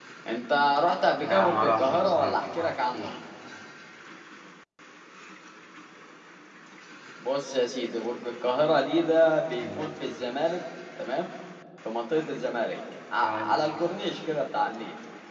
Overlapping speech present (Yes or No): Yes